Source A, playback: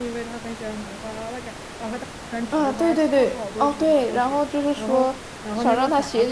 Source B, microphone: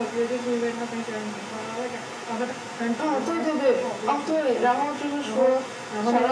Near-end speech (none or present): none